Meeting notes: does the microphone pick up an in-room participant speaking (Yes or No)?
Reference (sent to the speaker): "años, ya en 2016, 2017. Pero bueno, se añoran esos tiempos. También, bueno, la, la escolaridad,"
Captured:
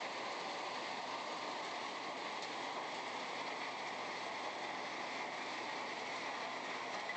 No